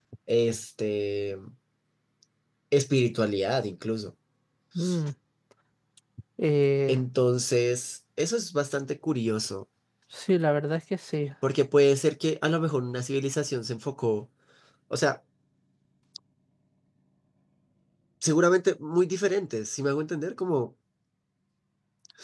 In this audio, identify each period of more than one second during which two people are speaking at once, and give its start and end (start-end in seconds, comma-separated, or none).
none